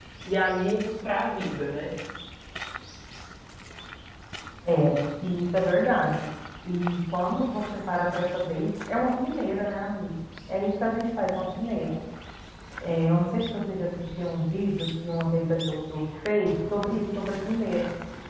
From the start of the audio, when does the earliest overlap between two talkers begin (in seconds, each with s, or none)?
none